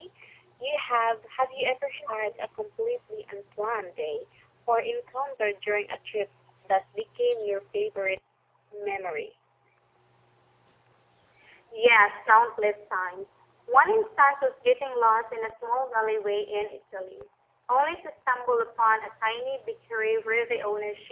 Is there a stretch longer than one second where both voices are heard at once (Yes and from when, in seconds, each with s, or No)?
No